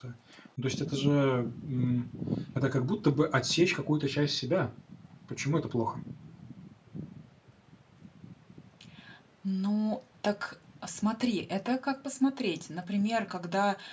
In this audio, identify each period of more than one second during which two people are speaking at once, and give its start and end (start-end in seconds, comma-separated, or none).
none